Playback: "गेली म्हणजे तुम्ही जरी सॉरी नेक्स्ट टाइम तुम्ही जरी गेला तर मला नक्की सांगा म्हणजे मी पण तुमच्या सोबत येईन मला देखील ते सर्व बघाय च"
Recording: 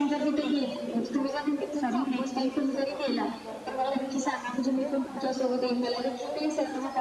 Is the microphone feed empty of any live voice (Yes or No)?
No